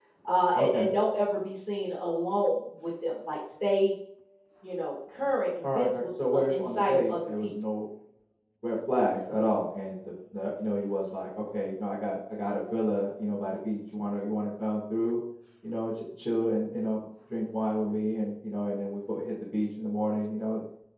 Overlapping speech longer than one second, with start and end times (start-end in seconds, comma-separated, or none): 5.8-7.5